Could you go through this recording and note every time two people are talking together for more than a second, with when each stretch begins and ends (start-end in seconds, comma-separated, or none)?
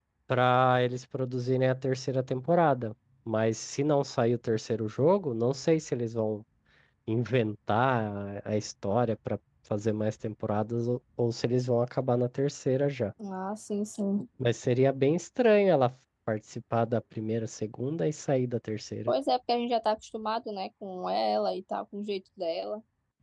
none